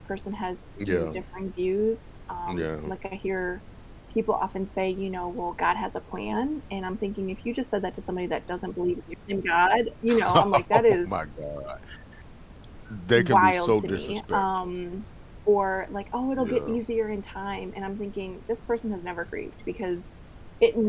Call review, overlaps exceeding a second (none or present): present